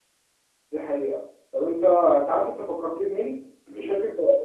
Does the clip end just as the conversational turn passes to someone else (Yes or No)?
No